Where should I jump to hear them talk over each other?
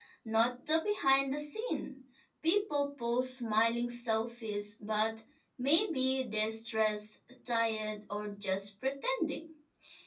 none

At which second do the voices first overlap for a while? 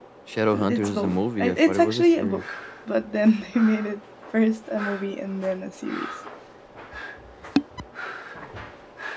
0.5 s

